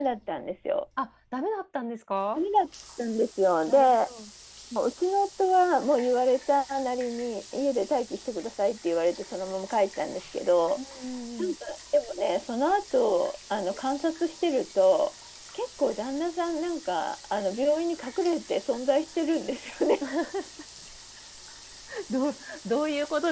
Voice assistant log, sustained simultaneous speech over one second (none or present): none